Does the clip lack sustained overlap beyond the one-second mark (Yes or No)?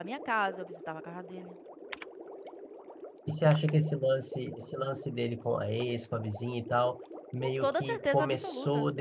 No